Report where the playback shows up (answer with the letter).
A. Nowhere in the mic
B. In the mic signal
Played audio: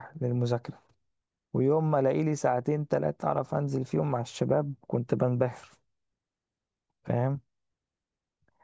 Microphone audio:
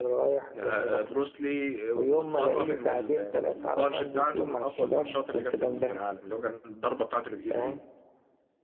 B